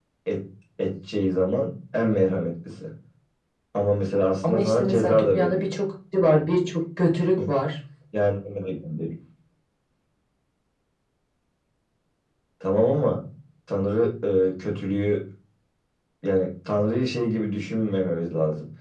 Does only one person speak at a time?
No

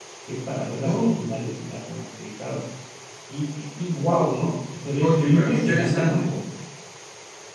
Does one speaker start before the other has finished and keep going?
Yes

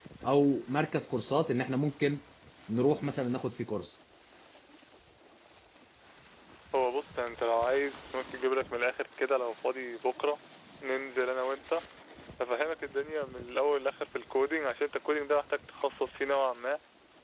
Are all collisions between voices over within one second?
Yes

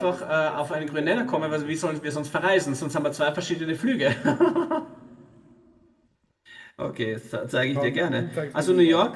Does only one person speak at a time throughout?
No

